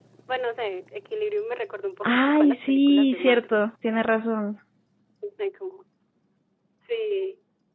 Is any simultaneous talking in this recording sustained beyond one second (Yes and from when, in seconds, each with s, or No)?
Yes, from 2.0 s